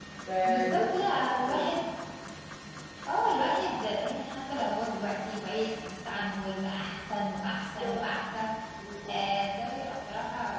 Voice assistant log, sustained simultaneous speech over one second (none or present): present